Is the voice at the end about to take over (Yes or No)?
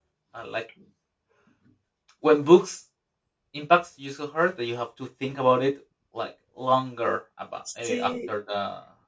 No